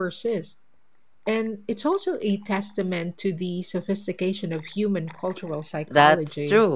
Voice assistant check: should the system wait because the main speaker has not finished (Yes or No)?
No